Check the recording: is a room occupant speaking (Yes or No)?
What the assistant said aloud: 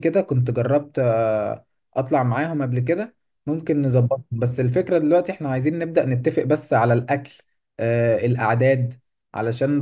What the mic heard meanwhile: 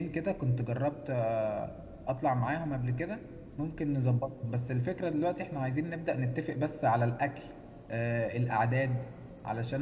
No